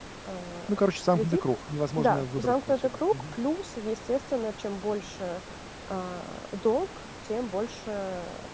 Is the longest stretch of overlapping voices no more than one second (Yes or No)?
No